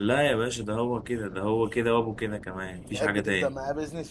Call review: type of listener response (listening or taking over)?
taking over